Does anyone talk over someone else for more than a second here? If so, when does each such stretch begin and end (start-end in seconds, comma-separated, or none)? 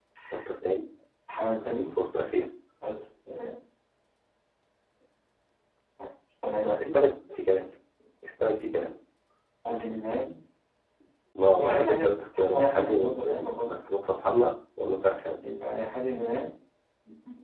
11.6-13.8